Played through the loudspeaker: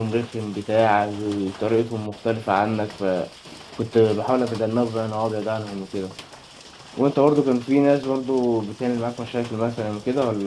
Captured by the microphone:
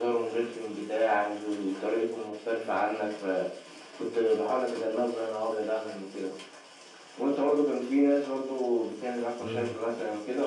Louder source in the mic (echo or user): echo